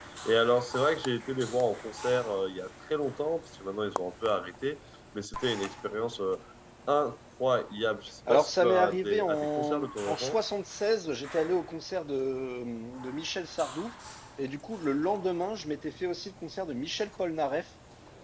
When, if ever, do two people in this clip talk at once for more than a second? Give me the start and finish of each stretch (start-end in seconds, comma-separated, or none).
8.3-10.4